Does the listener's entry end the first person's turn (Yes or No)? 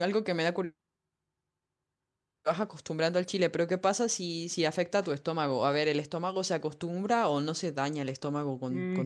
Yes